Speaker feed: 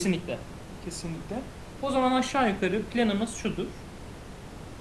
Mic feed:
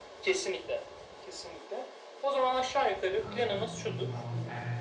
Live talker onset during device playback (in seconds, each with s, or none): 3.2 s